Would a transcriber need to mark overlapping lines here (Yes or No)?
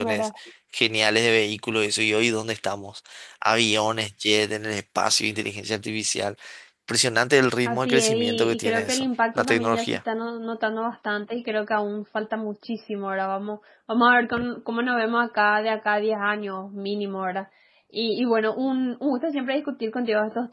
Yes